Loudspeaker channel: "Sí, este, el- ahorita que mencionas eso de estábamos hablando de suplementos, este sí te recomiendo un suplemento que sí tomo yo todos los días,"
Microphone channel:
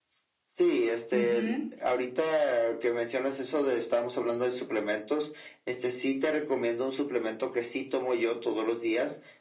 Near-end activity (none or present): present